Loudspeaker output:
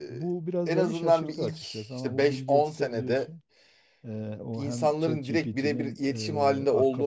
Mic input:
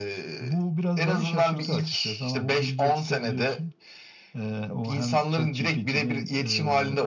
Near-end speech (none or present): none